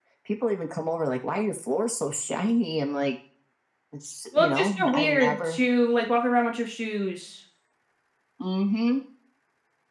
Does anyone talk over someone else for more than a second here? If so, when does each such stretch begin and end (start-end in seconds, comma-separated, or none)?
4.4-5.6